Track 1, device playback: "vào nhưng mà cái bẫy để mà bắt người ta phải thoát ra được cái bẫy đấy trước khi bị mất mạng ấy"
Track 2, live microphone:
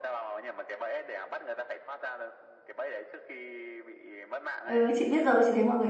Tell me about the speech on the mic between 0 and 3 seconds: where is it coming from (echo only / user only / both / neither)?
echo only